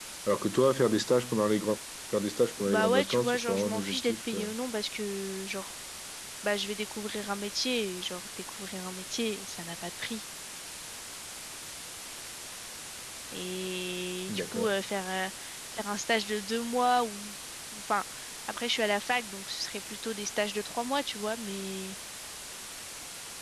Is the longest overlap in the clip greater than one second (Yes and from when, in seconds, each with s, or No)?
Yes, from 2.7 s